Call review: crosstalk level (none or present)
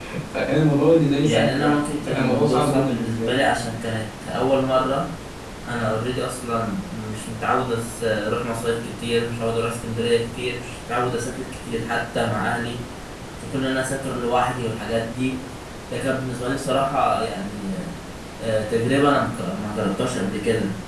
present